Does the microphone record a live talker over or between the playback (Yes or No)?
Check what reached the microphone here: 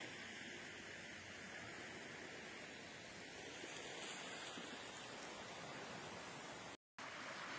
No